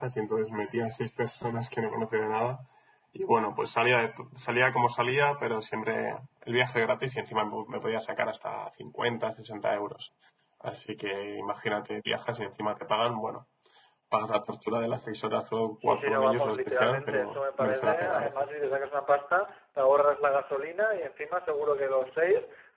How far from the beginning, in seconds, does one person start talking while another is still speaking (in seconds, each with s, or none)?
15.8 s